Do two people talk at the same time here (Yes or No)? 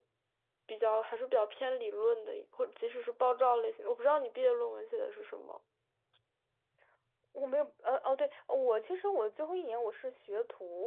No